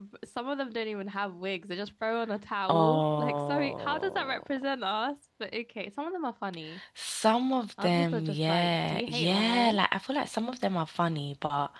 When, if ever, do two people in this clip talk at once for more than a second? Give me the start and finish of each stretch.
2.7-4.4, 7.8-9.8

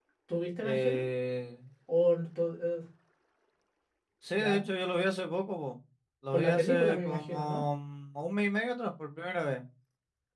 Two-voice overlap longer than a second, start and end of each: 6.3-7.6

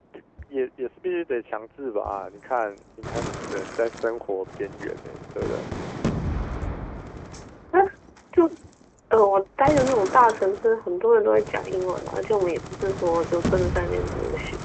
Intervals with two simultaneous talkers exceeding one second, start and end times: none

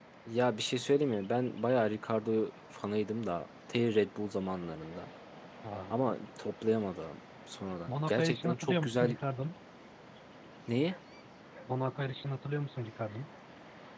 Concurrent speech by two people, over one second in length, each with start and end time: 7.9-9.2

